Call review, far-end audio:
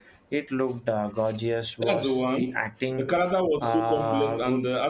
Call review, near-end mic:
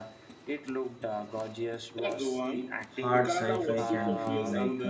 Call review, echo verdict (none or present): present